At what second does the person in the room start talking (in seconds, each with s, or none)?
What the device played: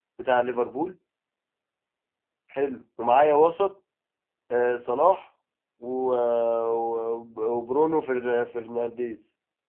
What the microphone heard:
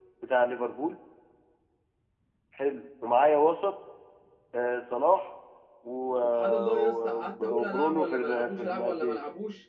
6.2 s